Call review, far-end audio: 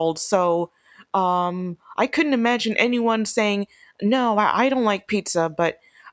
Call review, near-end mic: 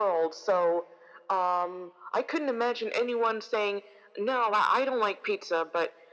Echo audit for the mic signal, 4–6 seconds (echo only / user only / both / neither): echo only